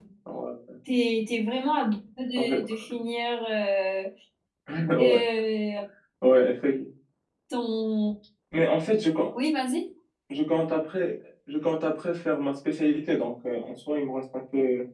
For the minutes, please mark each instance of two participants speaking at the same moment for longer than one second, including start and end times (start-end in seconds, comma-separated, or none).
none